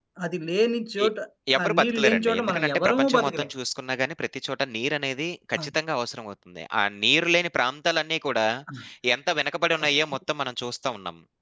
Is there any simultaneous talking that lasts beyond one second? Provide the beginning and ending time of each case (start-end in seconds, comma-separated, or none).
1.6-3.5